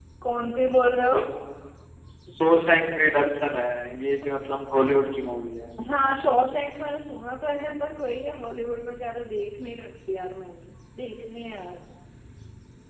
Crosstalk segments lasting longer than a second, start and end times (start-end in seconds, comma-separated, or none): none